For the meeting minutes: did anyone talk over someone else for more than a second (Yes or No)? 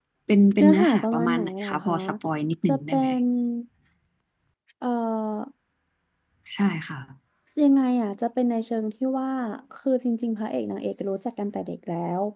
Yes